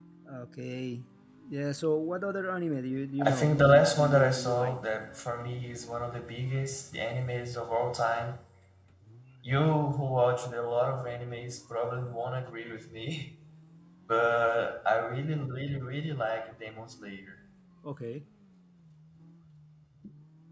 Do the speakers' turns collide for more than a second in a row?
Yes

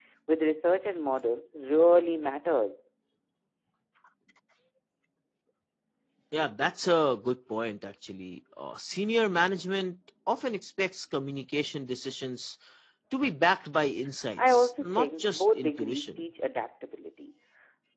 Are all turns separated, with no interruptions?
No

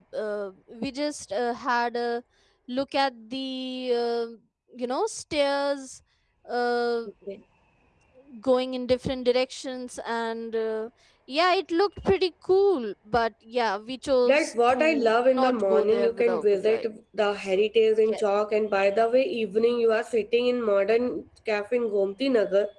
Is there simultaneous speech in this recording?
Yes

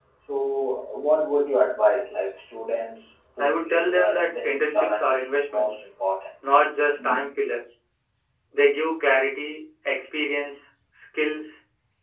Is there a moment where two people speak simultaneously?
Yes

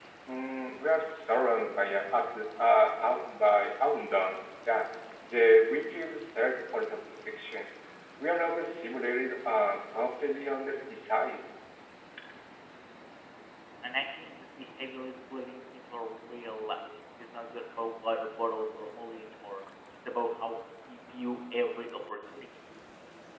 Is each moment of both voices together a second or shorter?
Yes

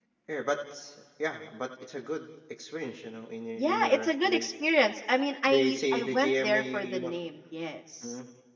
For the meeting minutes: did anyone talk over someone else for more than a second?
Yes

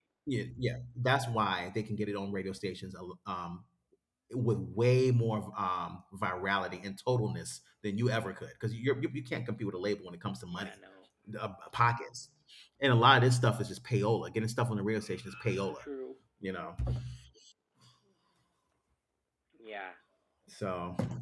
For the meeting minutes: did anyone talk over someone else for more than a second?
No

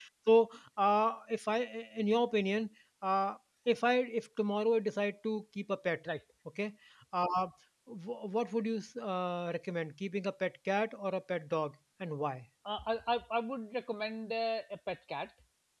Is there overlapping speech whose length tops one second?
No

